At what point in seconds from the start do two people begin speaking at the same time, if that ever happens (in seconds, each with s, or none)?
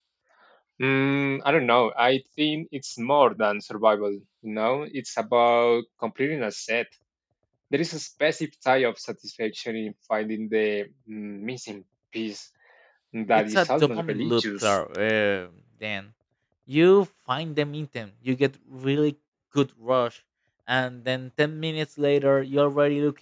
13.5 s